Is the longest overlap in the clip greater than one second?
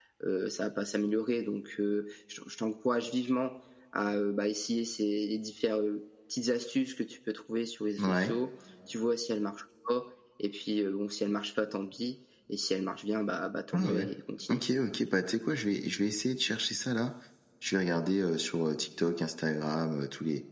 No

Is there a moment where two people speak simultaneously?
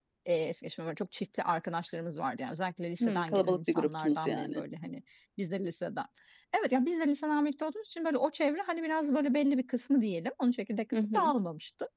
Yes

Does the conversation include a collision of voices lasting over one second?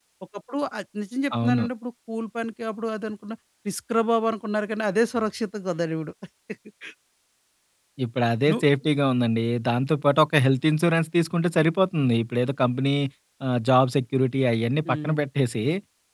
No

